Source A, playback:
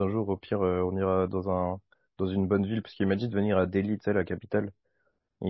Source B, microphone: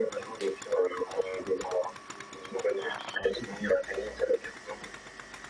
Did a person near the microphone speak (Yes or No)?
No